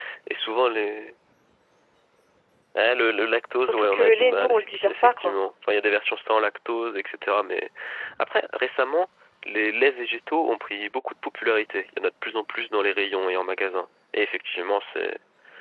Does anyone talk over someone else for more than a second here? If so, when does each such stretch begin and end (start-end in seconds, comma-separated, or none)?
3.6-5.4